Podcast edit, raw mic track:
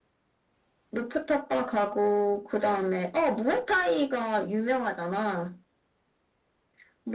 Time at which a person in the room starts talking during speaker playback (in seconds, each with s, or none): none